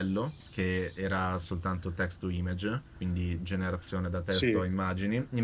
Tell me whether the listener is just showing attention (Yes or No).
Yes